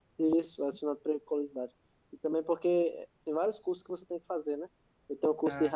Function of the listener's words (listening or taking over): listening